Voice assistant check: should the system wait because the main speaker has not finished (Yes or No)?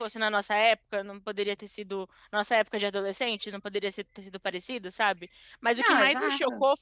Yes